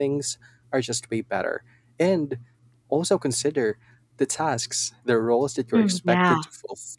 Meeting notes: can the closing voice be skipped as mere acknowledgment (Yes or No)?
Yes